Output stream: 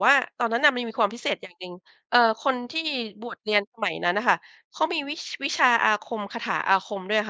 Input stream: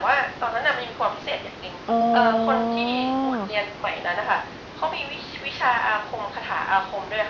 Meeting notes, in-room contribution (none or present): present